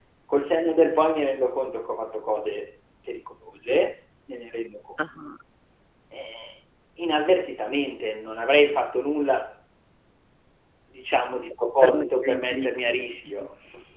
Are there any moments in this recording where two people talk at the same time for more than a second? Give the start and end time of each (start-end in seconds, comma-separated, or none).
11.8-13.5